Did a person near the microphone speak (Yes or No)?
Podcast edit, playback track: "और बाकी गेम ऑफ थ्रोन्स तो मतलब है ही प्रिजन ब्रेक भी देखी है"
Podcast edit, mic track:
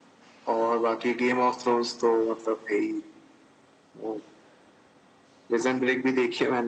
No